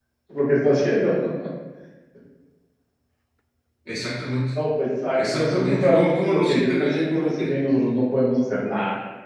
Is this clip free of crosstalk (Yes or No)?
No